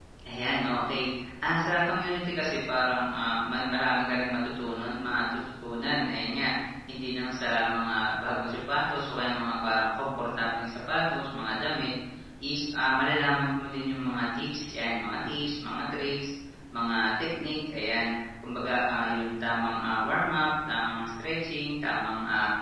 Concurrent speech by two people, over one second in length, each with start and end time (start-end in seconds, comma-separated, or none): none